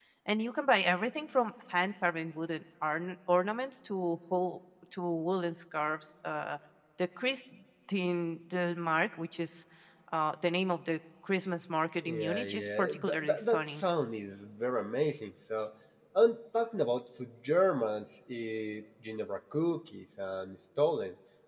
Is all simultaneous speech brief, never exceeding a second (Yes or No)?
No